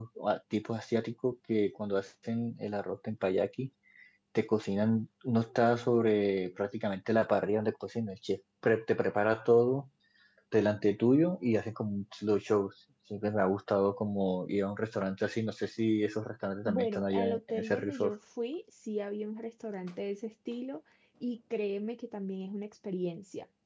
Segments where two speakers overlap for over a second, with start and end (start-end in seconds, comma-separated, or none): 16.6-18.1